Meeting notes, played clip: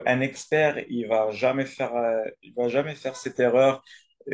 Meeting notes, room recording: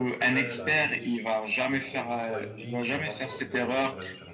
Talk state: both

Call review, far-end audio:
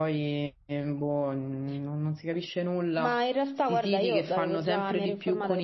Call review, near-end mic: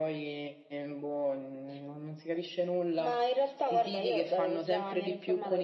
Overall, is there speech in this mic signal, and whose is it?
echo only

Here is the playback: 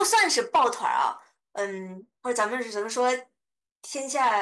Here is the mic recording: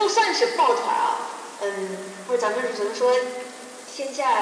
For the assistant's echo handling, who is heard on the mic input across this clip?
echo only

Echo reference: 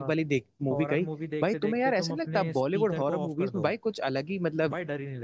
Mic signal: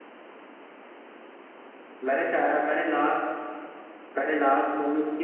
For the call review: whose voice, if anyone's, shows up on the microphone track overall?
user only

